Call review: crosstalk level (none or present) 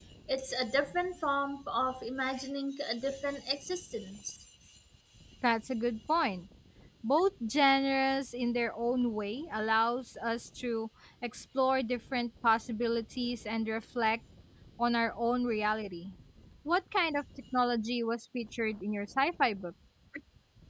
none